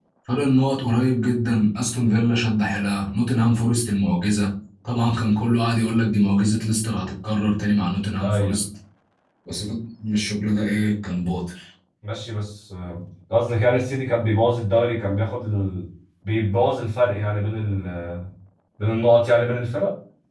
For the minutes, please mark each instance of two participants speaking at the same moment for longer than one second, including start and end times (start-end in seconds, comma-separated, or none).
none